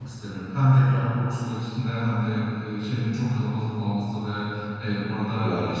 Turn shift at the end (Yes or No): No